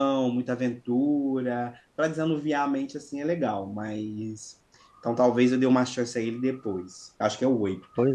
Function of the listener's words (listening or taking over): listening